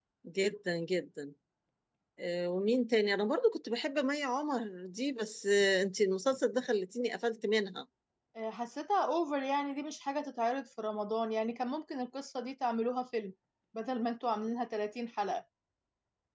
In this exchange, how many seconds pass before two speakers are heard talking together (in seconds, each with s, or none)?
none